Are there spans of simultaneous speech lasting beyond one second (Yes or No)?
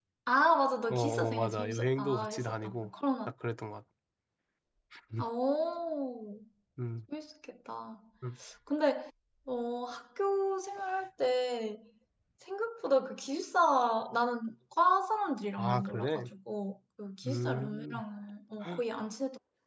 Yes